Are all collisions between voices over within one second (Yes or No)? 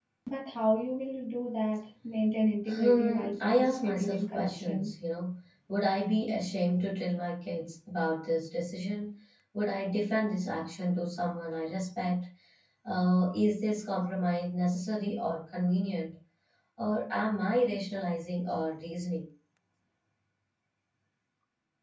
No